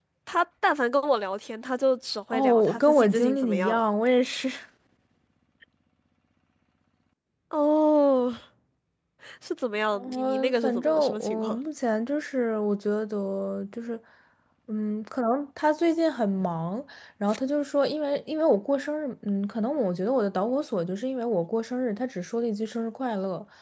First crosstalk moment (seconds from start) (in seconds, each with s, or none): 2.3 s